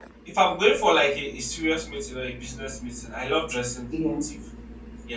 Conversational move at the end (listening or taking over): listening